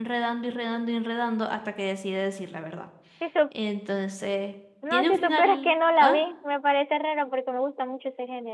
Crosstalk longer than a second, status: present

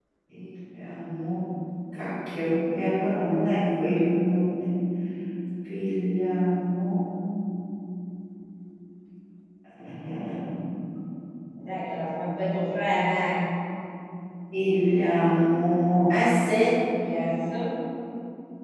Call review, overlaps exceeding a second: none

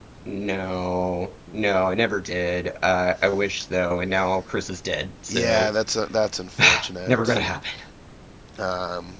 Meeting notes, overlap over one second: none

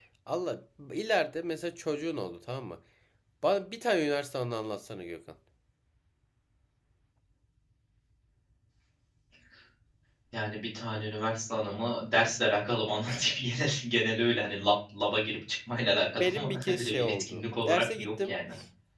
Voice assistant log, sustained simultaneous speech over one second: present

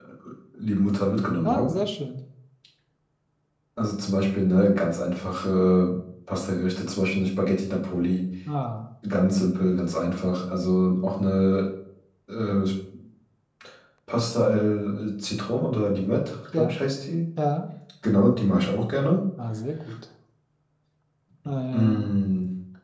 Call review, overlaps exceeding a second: none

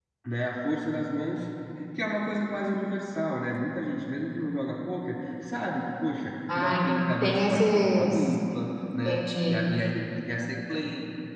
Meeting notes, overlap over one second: present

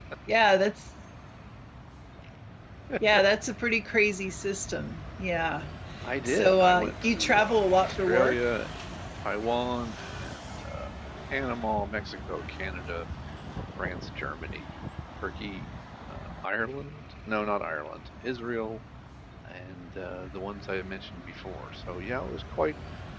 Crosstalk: present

